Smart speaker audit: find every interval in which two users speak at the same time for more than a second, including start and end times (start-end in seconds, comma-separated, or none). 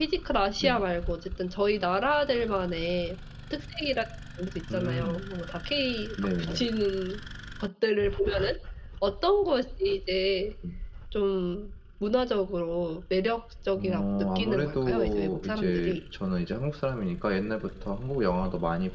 13.8-16.0